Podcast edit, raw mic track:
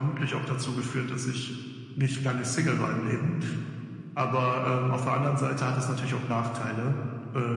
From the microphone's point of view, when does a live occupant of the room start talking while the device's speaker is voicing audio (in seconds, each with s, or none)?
none